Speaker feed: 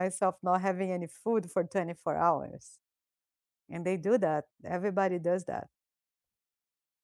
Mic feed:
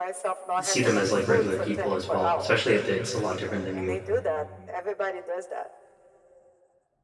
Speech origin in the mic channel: both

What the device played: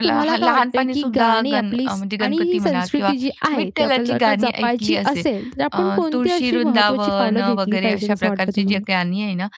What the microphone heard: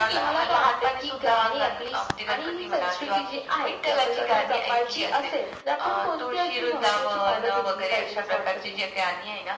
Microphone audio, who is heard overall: echo only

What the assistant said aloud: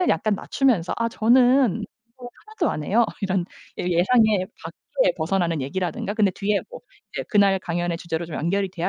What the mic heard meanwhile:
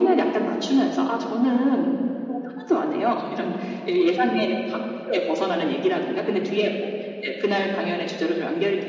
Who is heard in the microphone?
echo only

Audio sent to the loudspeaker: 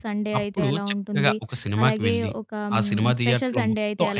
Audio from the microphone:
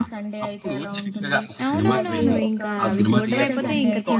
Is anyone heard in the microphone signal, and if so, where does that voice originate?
both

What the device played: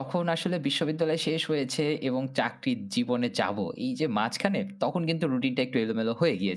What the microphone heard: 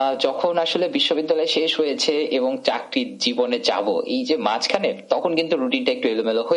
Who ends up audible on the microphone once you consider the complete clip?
echo only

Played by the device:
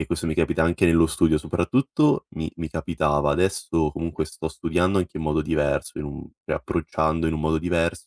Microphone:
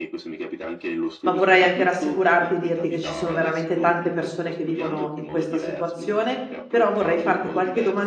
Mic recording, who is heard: both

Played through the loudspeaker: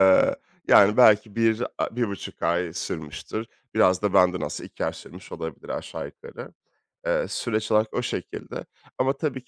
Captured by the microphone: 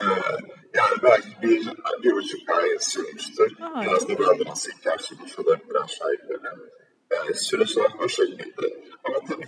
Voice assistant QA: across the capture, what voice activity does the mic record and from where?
both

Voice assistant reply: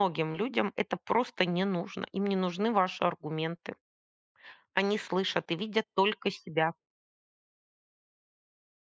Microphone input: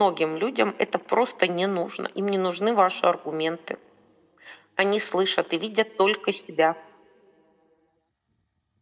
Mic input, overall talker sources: echo only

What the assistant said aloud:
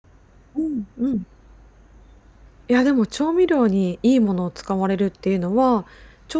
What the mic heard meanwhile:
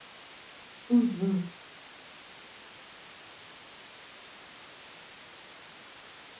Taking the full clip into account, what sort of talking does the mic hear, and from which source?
user only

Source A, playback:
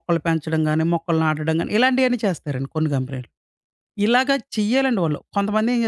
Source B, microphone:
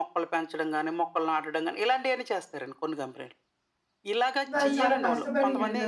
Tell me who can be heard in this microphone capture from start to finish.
both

